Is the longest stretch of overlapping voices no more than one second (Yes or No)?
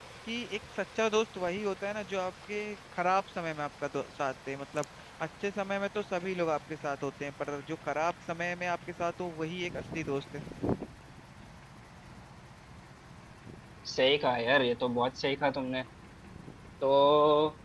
Yes